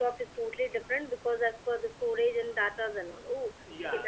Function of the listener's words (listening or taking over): taking over